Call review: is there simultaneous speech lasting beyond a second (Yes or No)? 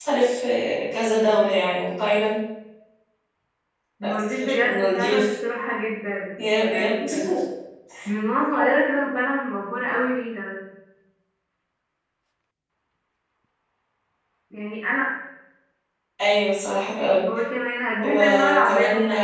Yes